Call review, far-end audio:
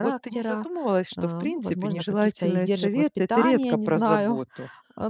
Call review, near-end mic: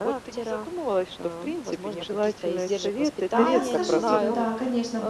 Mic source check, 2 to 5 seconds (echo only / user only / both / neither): both